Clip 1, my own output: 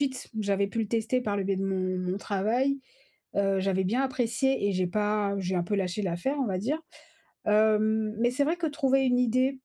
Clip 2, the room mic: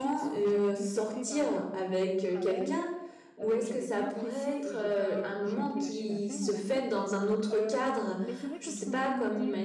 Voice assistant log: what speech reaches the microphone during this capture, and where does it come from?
both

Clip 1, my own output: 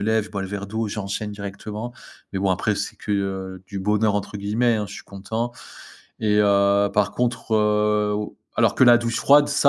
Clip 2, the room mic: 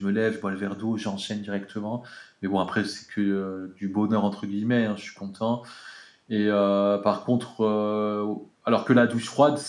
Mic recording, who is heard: echo only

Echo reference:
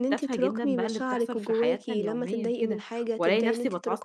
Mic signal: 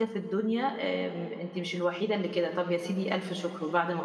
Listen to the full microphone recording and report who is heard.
user only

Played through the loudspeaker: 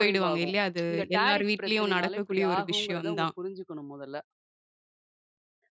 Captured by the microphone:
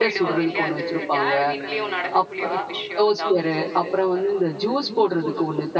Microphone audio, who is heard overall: both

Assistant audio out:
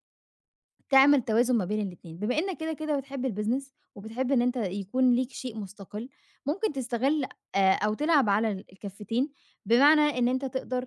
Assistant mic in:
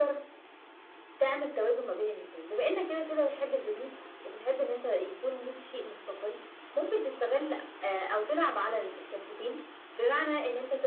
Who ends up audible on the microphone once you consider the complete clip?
echo only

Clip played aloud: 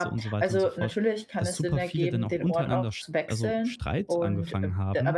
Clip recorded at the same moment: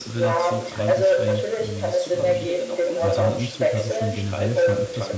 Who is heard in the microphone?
both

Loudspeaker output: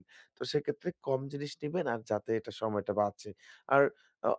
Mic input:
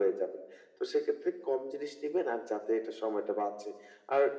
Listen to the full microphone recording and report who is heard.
echo only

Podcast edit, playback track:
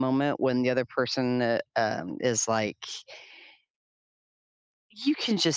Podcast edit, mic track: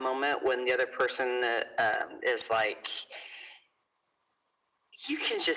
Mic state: echo only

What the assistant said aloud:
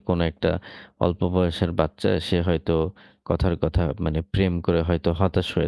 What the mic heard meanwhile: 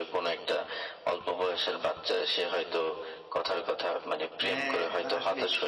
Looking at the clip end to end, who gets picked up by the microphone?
both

